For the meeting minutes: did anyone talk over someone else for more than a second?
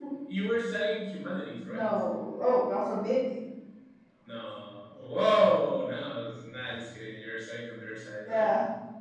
No

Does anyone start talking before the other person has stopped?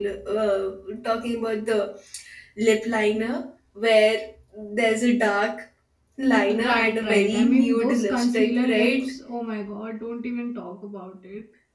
Yes, from 6.6 s

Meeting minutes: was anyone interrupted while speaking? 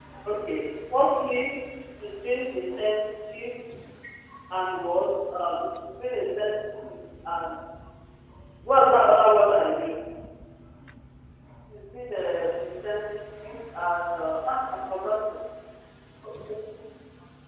No

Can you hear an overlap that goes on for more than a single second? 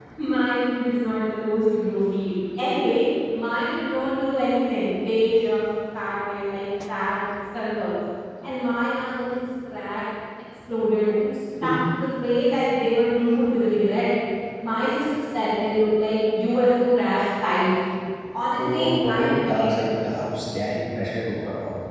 Yes, from 18.6 s

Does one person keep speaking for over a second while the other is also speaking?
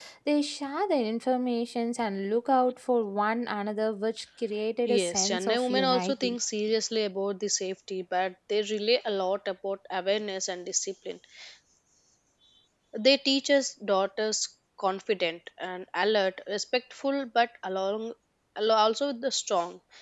Yes, from 4.9 s

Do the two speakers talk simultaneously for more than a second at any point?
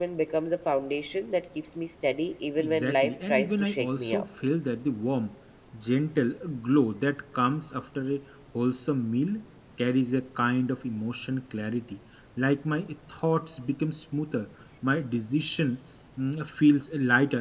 Yes, from 2.6 s

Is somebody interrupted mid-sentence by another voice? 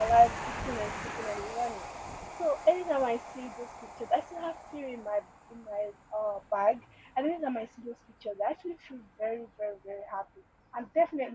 No

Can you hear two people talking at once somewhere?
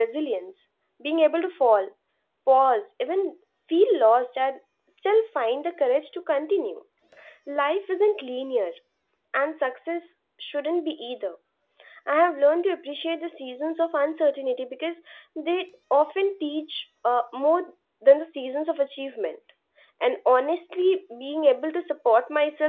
No

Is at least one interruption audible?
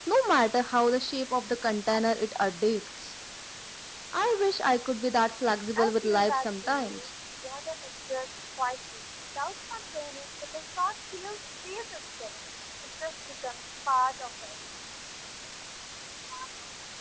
Yes, from 5.8 s

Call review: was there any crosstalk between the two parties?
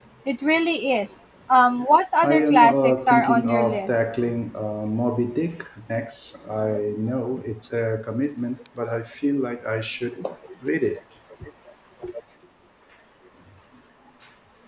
Yes, from 2.2 s

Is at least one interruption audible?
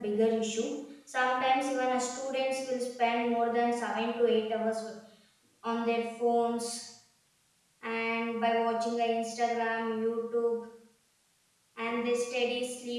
No

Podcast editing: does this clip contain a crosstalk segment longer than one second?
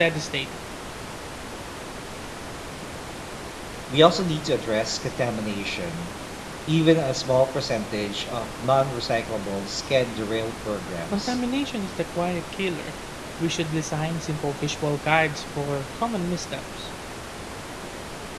No

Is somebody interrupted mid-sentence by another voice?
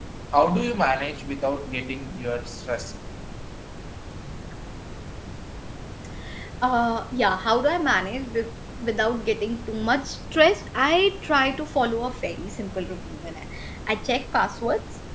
No

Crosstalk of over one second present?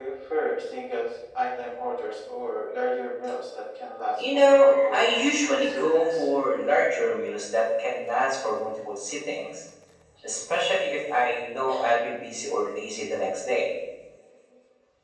Yes, from 4.2 s

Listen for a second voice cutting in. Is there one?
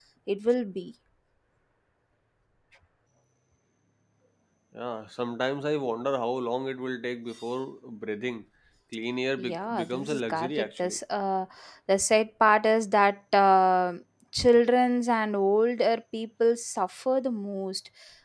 Yes, from 9.4 s

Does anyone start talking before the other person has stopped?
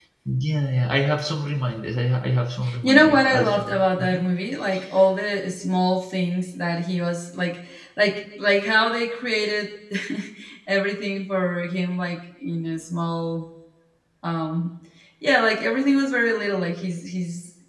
Yes, from 2.8 s

